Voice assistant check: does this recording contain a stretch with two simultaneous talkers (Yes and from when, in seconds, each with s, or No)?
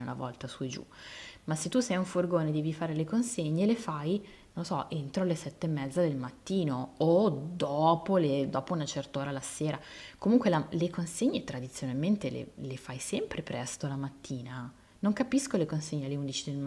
No